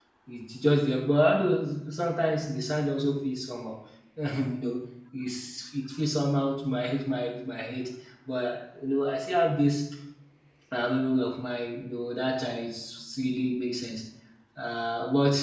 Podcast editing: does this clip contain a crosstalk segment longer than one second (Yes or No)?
No